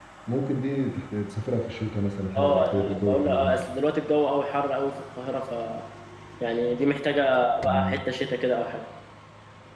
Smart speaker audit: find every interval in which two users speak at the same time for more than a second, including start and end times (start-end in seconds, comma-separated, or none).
2.4-3.6